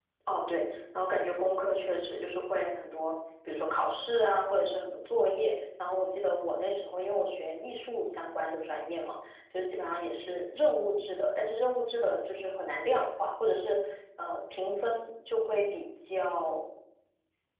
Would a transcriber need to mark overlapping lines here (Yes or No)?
No